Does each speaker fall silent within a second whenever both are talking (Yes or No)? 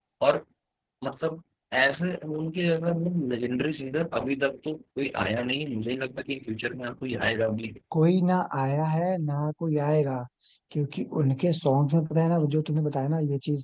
Yes